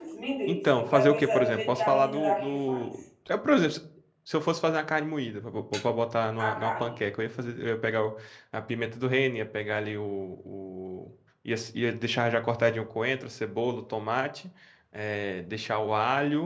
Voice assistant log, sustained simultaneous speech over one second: present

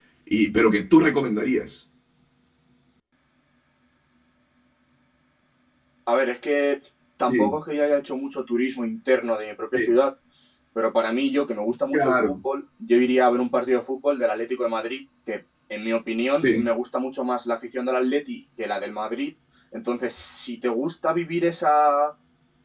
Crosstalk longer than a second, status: none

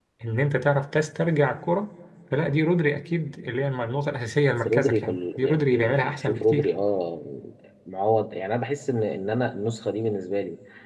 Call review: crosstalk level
present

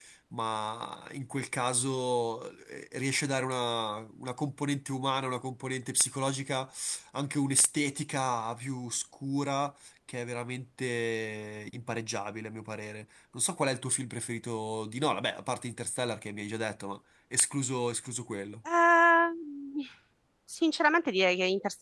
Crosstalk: none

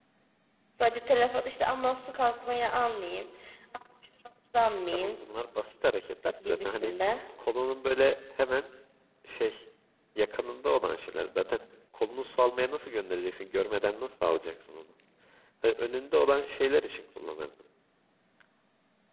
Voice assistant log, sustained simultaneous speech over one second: none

